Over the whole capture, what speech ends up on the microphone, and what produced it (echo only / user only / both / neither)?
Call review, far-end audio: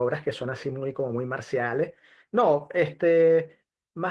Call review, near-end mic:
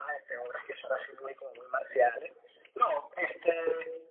echo only